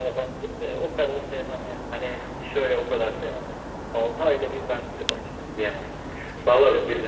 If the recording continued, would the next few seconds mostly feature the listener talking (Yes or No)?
Yes